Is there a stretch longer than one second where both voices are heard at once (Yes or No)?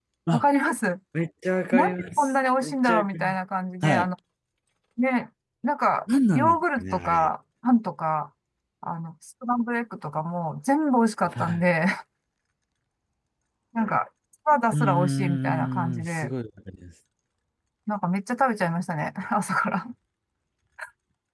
Yes